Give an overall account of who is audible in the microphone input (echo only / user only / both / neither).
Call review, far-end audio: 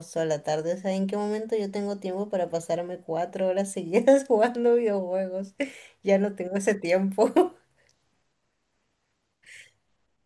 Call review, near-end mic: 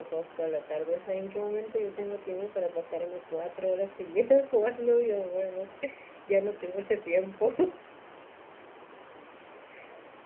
echo only